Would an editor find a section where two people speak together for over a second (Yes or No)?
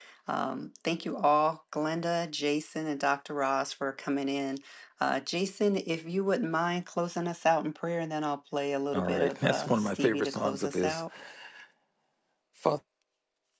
Yes